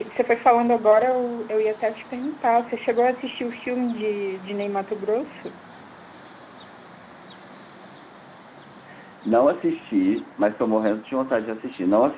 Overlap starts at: none

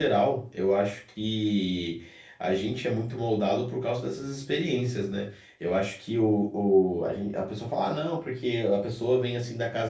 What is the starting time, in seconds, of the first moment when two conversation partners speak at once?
none

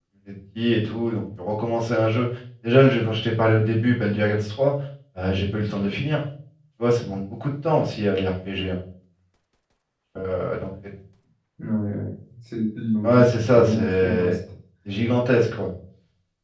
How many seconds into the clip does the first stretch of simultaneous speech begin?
13.0 s

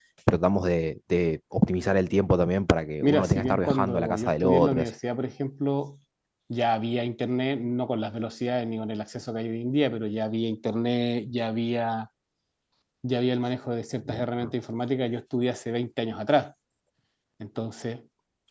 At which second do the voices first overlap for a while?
3.0 s

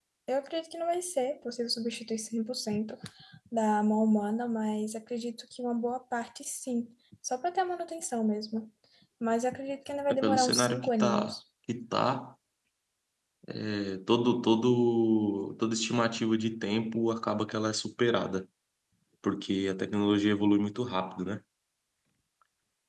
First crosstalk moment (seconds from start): 10.1 s

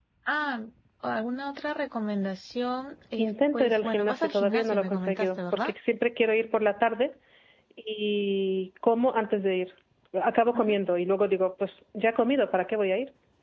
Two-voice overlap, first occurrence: 3.2 s

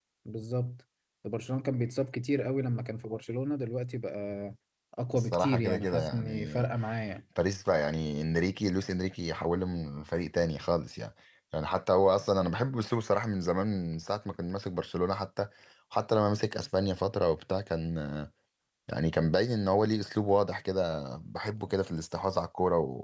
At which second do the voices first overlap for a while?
5.1 s

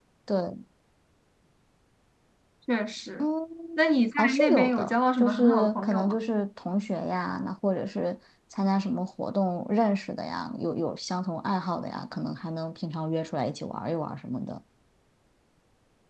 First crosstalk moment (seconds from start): 4.2 s

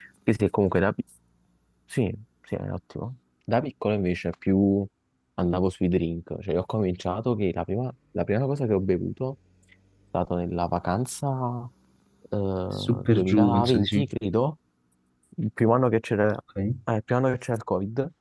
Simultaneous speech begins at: 12.8 s

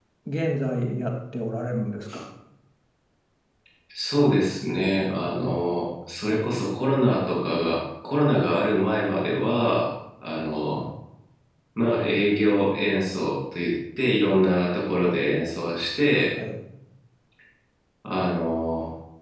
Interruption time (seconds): none

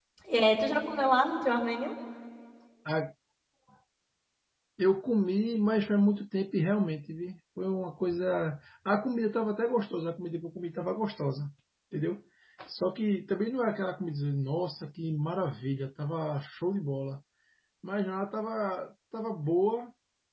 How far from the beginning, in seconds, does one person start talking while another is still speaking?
none

